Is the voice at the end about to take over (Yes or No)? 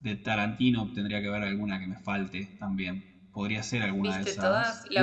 Yes